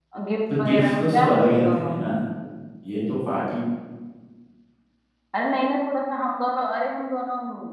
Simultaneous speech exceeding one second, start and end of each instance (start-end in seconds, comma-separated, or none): 0.6-2.0